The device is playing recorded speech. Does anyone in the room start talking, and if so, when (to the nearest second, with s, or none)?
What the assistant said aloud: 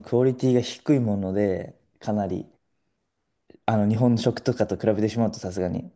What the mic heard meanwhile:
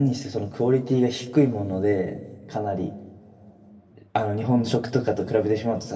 none